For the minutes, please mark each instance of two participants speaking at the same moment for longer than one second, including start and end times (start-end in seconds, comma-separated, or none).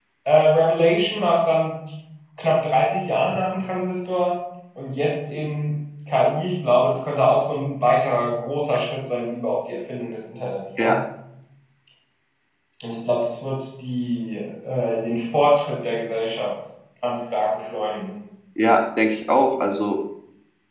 none